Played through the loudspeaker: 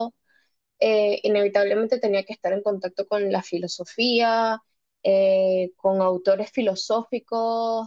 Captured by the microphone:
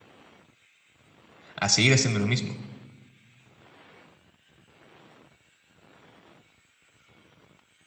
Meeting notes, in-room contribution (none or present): present